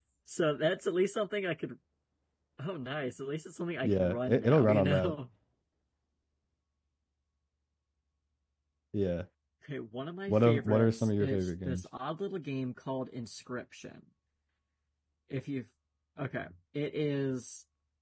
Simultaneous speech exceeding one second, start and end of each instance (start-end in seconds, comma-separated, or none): 3.8-5.2, 10.3-11.8